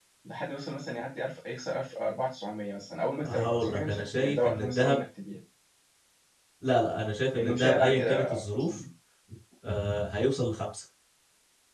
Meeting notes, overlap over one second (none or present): present